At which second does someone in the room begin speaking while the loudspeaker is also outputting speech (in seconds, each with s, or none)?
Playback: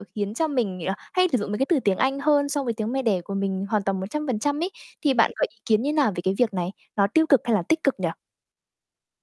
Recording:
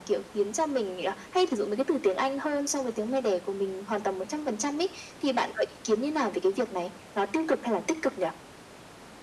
none